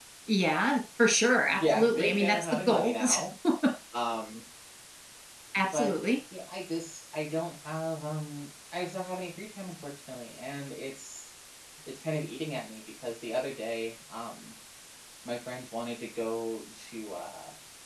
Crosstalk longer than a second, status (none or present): present